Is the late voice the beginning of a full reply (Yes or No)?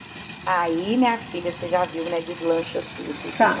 Yes